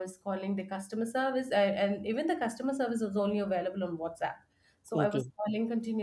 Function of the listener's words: listening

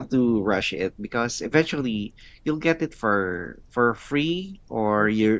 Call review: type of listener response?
listening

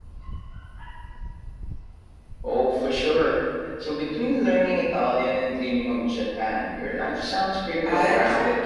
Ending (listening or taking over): taking over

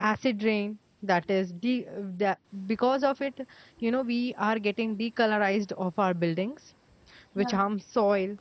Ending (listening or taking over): listening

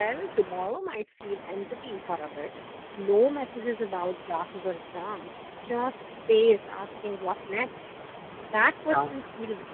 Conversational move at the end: listening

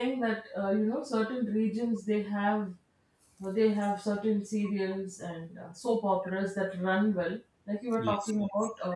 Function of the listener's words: listening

